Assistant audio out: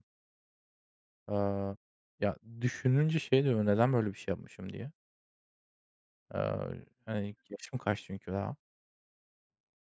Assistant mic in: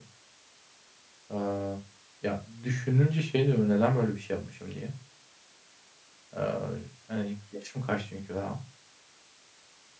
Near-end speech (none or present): none